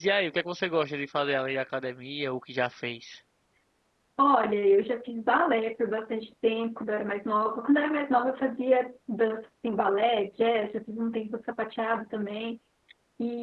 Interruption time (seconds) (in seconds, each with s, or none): none